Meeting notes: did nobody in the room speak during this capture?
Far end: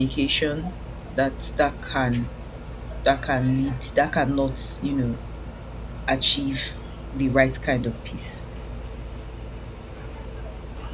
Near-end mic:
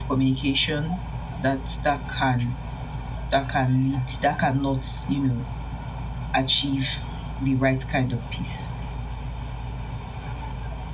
Yes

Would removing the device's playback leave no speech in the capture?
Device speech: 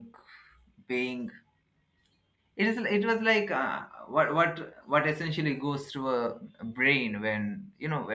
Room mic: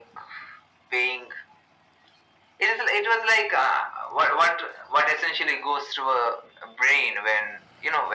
Yes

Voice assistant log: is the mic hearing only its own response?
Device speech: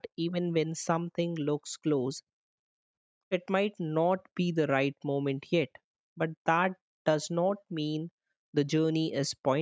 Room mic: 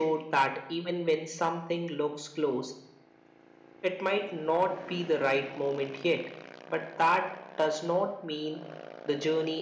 Yes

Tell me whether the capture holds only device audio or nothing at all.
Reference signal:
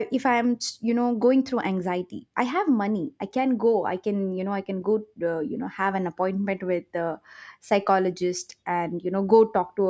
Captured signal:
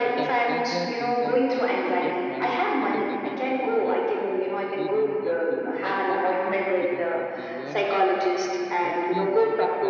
No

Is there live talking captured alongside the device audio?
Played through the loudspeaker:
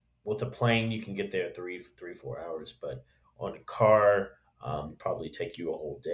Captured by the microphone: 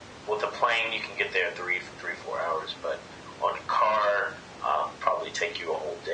No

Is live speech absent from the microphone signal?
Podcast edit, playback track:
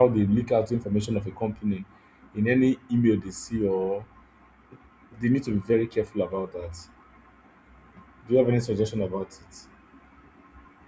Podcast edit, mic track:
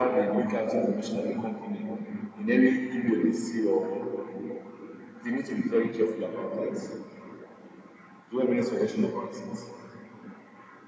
Yes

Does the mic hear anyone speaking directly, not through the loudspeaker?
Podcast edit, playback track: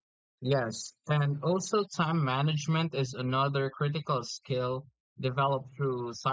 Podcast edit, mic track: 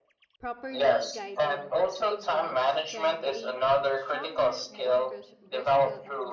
Yes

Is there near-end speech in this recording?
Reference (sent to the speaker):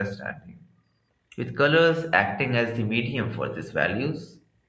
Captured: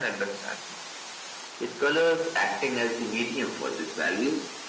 No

